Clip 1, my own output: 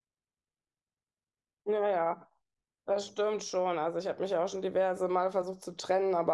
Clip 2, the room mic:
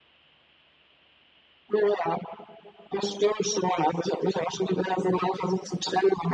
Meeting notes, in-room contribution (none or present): none